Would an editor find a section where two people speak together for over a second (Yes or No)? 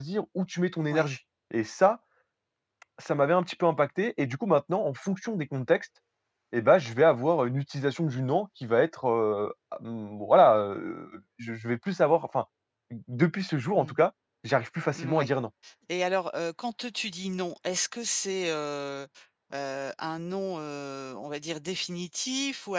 No